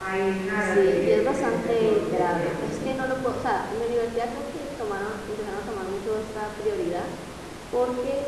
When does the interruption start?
0.6 s

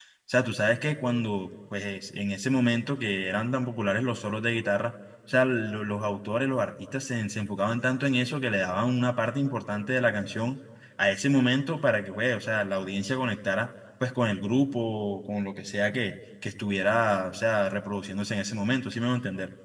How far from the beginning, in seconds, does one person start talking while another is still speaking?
none

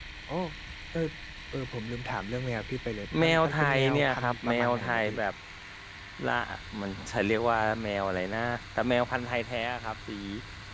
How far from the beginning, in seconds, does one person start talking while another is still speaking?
3.1 s

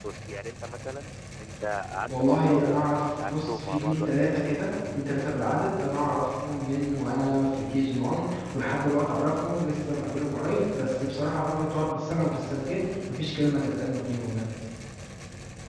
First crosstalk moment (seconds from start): 2.0 s

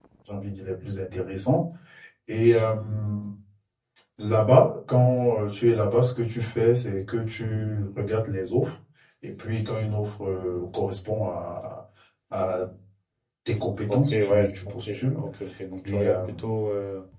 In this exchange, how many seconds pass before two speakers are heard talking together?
13.9 s

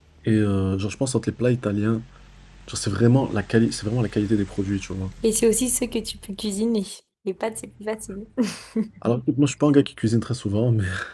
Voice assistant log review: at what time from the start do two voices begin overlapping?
none

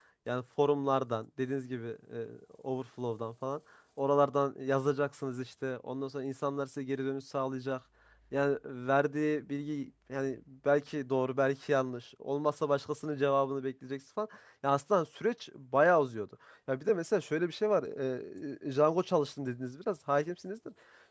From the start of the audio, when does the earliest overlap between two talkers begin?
none

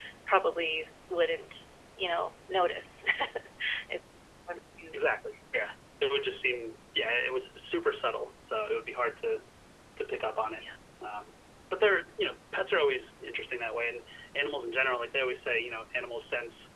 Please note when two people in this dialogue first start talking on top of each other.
none

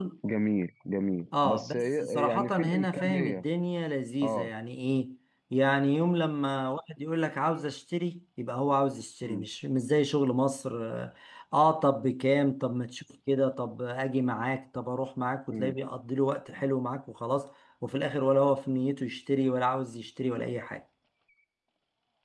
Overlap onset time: 1.4 s

